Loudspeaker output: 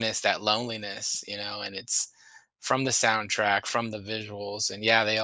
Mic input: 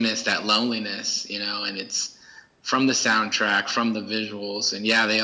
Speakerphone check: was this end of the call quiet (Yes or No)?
Yes